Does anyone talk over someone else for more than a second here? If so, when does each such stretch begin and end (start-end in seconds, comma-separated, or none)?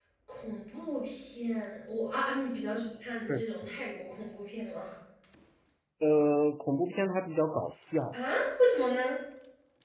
none